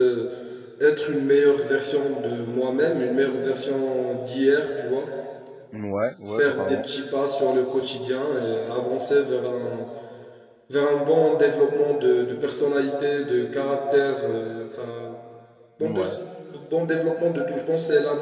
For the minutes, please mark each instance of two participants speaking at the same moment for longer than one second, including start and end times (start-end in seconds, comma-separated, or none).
none